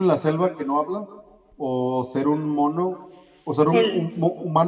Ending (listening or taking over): listening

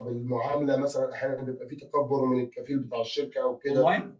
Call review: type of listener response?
listening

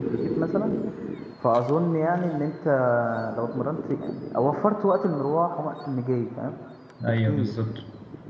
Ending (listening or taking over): taking over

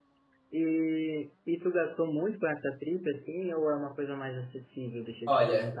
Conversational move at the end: taking over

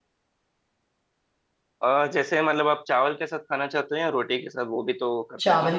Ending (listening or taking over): taking over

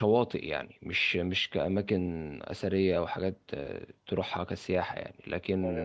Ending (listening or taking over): listening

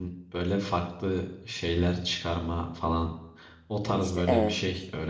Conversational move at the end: listening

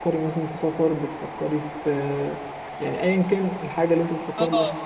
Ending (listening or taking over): taking over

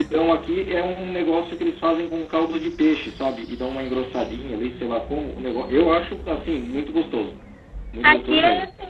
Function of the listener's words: taking over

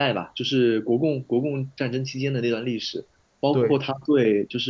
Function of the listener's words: listening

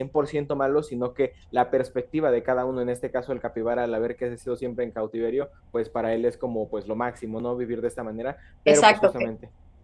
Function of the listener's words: taking over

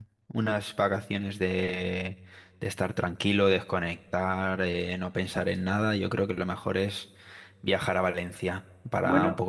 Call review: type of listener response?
listening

